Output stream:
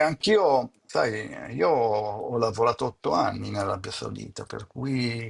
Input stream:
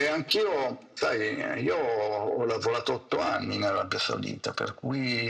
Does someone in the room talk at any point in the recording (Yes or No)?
No